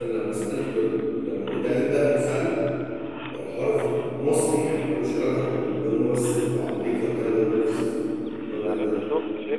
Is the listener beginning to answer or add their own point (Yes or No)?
Yes